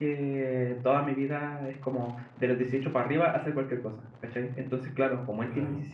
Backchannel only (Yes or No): Yes